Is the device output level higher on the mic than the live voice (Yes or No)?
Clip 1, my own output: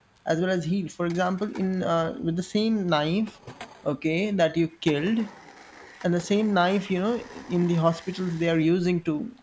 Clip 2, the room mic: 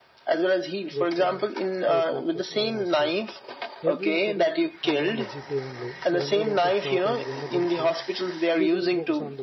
Yes